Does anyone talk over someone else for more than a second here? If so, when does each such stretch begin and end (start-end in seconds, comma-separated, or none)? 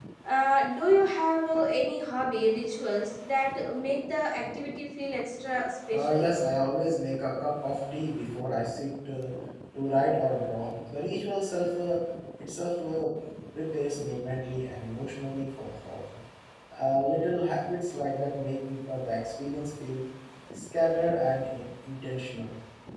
none